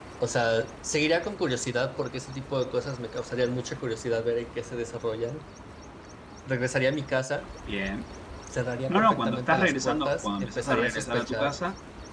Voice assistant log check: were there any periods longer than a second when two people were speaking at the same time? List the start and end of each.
8.9-11.6

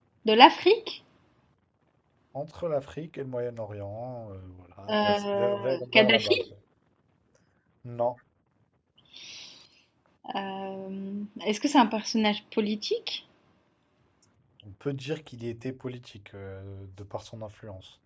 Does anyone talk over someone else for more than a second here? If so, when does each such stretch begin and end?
4.9-6.4

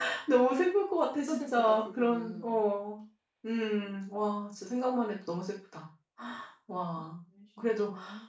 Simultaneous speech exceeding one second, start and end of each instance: 1.2-2.6

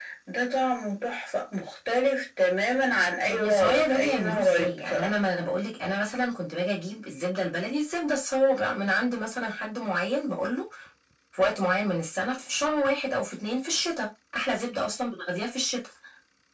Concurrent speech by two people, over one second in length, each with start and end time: 3.3-5.1

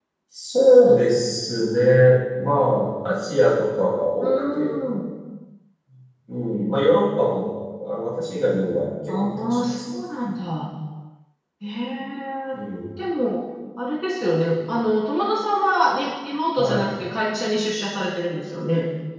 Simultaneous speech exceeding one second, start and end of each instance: 9.2-10.4

